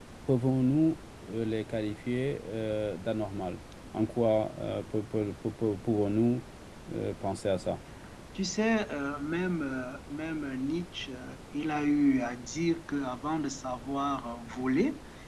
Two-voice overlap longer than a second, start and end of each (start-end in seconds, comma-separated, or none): none